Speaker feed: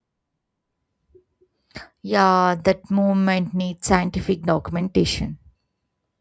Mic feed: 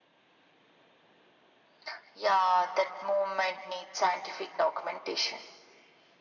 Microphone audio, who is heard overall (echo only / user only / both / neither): echo only